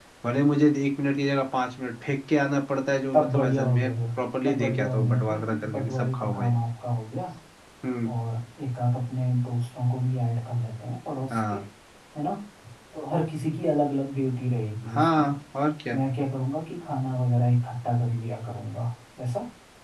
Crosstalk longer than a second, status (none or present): present